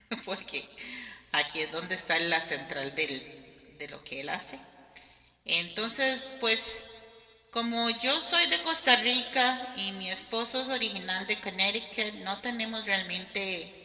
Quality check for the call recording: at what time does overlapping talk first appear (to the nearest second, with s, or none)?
none